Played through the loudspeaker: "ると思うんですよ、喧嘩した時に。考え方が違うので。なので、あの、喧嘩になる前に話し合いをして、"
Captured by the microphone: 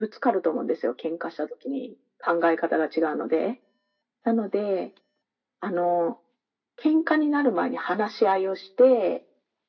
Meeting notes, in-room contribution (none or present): none